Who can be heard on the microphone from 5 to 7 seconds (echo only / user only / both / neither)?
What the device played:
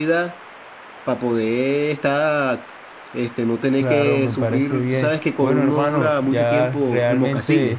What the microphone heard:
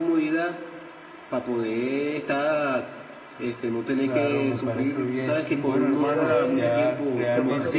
both